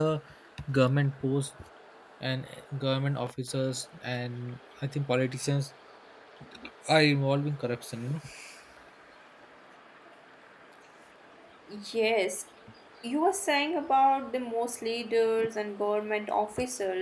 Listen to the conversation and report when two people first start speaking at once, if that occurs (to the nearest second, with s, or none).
none